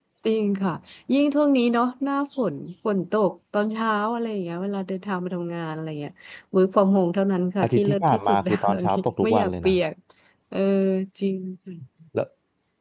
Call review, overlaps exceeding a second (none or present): present